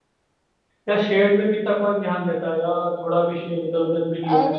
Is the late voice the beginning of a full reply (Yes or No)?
Yes